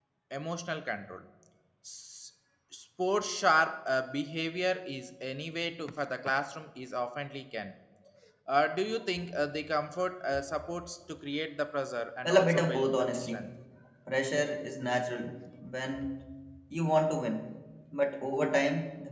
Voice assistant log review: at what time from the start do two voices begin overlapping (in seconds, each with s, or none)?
12.2 s